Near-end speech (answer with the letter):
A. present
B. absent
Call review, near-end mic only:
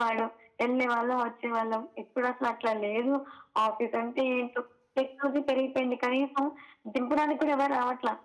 B